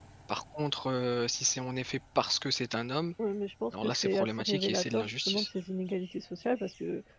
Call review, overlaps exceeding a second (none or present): present